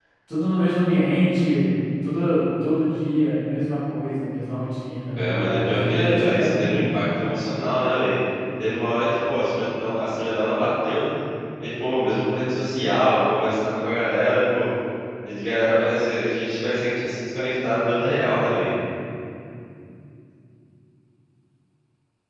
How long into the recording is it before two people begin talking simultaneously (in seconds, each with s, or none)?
5.2 s